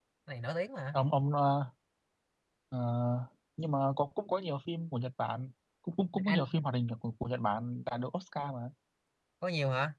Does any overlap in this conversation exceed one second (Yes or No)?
No